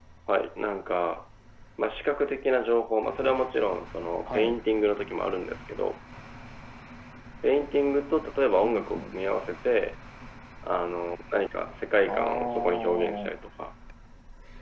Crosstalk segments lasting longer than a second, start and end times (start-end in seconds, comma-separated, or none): 12.1-13.3